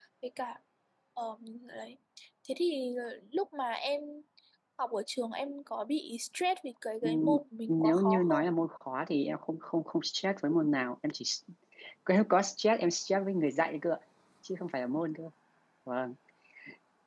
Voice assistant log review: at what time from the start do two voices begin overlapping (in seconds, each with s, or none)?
7.0 s